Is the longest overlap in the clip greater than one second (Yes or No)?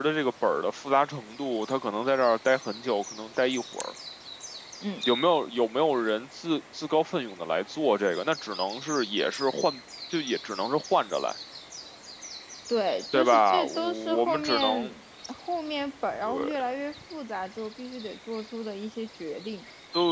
Yes